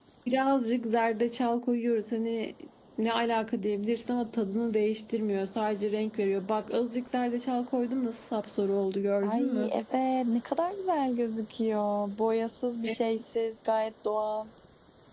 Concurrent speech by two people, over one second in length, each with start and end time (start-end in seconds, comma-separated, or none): none